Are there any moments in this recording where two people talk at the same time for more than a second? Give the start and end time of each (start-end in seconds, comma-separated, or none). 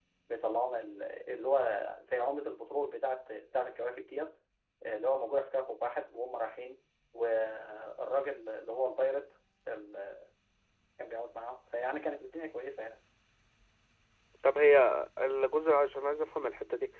none